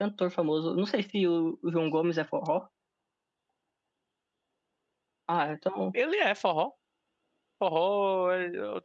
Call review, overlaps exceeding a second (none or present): none